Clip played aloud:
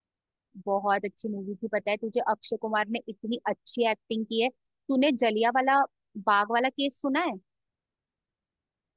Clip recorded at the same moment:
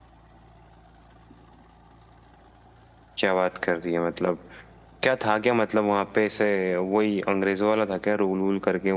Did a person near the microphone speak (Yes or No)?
Yes